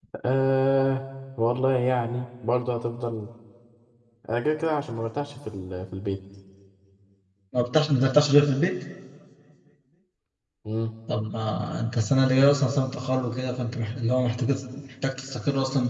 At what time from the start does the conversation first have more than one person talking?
none

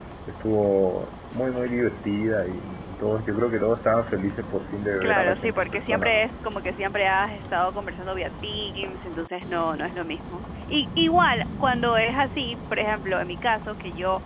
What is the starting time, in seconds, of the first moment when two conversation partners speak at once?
5.0 s

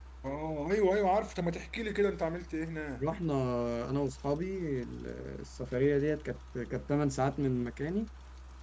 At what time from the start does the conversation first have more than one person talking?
none

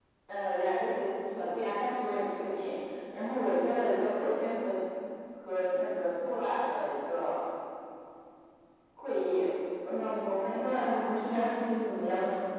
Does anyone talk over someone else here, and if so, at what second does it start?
9.9 s

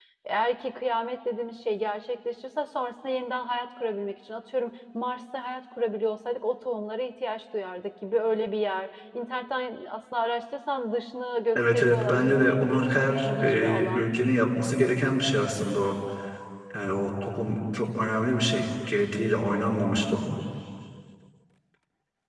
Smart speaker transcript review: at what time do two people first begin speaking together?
11.6 s

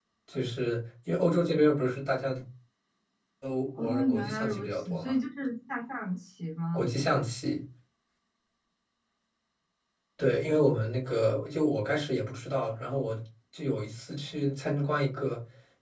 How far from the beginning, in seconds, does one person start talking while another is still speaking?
3.8 s

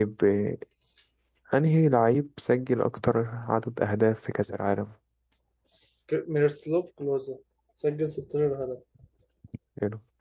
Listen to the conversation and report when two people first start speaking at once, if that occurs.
none

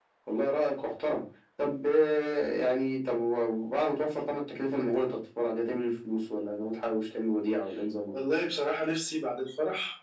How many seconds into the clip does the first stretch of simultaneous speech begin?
none

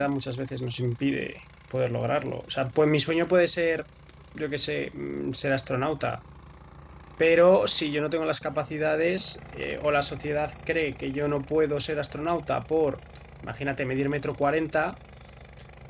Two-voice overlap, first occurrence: none

